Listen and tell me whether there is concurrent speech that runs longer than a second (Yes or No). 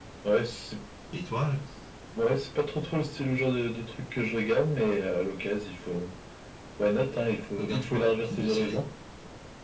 Yes